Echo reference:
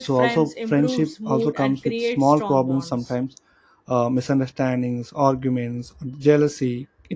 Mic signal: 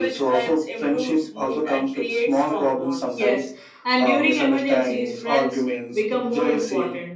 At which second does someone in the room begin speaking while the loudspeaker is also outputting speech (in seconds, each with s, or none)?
3.1 s